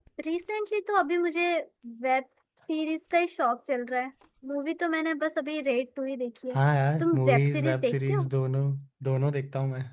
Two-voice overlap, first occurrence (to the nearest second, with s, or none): 7 s